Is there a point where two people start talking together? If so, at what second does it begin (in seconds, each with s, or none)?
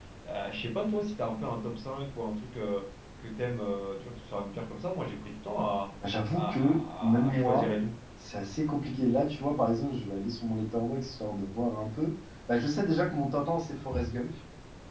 6.3 s